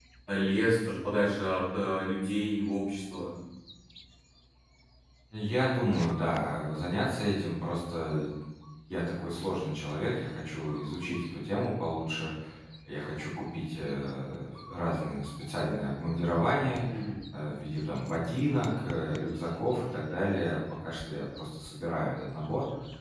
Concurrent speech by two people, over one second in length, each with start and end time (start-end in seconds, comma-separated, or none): none